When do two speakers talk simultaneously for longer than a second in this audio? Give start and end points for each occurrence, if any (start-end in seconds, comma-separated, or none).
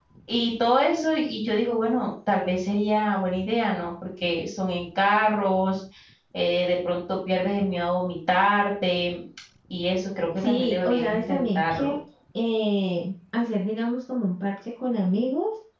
10.4-11.9